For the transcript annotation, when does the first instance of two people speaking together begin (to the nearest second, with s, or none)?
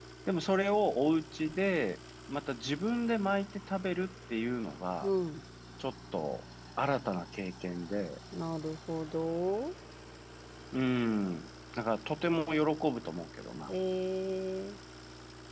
none